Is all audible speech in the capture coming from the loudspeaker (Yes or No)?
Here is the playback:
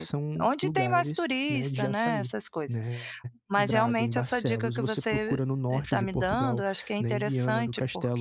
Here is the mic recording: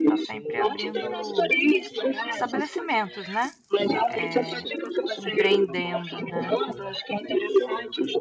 No